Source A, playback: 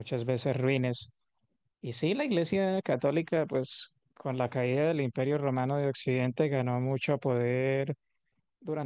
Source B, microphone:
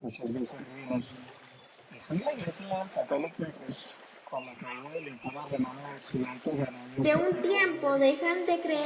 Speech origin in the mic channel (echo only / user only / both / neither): both